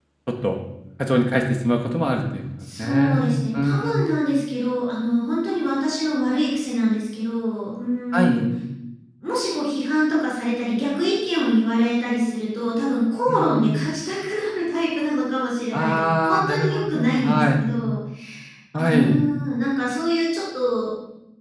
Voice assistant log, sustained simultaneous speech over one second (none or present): present